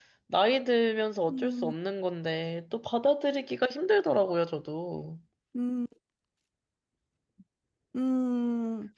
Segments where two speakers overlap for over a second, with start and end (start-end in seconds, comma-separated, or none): none